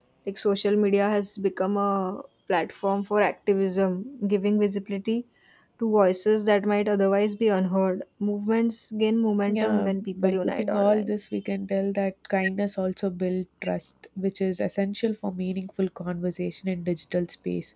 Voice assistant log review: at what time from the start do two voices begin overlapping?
9 s

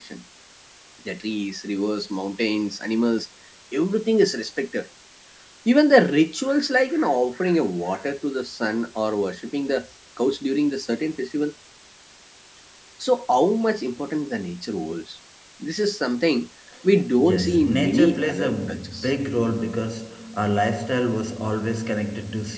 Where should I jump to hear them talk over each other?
17 s

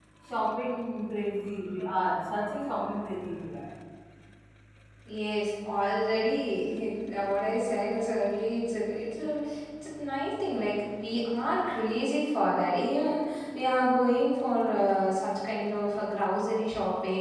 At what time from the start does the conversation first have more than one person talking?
none

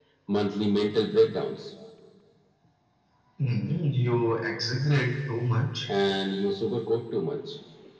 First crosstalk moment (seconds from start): none

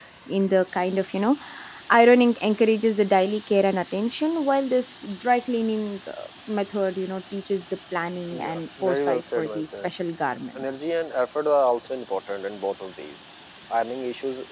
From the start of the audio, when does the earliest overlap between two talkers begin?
8 s

